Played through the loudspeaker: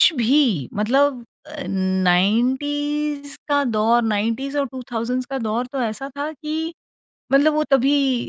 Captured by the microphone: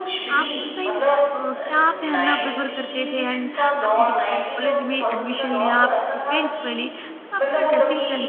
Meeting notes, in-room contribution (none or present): present